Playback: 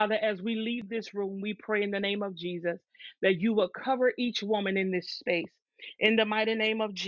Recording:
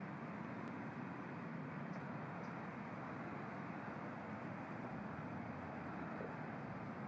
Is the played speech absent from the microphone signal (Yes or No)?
Yes